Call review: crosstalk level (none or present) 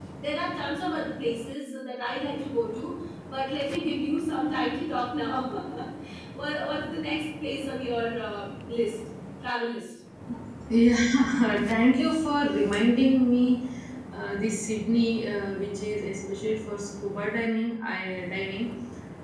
none